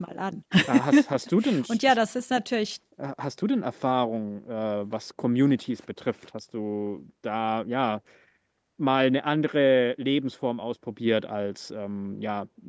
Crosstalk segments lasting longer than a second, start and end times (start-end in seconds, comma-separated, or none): none